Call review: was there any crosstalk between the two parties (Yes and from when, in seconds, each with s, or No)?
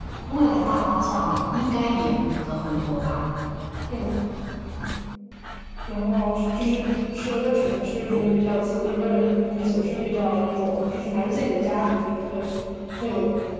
No